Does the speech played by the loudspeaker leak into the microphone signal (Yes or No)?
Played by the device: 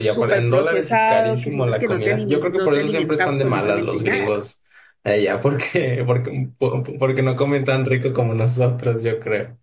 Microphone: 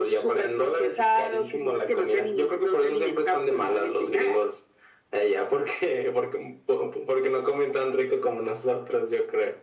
Yes